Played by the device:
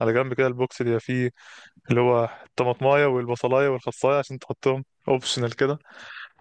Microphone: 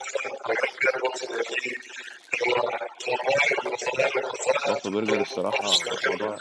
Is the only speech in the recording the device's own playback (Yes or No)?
No